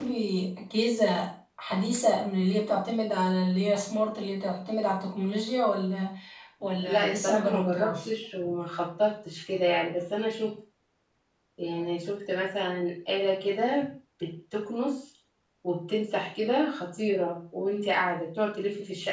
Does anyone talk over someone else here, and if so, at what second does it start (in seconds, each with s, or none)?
6.8 s